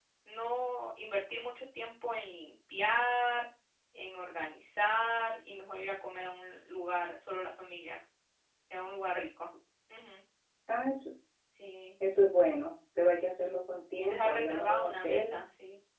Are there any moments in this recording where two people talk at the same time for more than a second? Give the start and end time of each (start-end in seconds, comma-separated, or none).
14.1-15.4